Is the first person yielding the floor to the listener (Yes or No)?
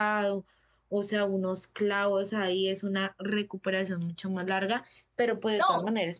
No